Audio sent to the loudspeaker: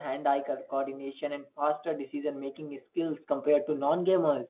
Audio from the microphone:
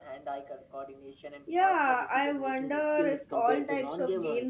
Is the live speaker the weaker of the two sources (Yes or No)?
No